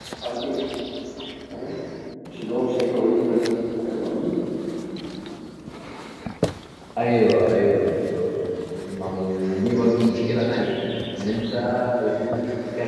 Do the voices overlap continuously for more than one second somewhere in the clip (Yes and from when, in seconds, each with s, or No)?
No